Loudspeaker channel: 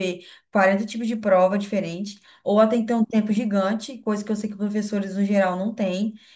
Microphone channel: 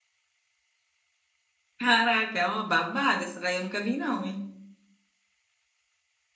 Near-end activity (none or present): present